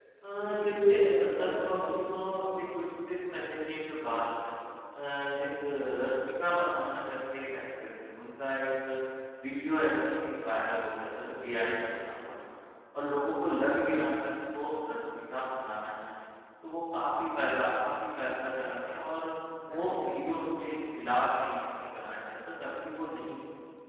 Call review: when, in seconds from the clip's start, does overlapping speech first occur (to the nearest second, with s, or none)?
1 s